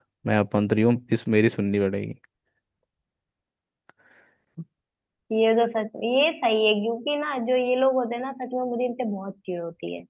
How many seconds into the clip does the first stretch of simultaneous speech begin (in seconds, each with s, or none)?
none